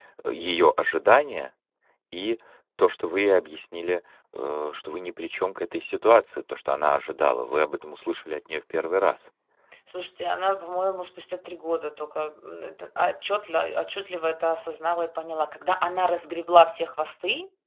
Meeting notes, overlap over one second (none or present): none